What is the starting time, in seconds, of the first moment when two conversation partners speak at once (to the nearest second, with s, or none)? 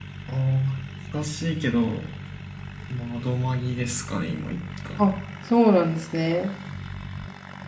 none